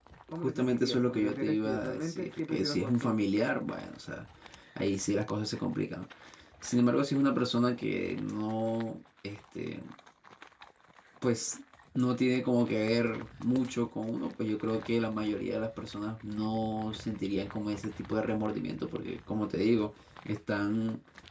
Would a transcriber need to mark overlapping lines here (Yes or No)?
Yes